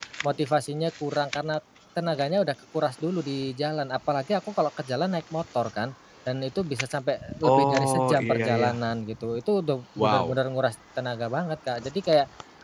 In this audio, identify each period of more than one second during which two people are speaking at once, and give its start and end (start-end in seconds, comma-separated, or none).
7.4-8.8